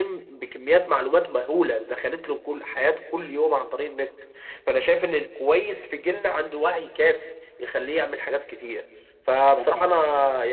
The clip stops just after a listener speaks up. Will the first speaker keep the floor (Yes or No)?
Yes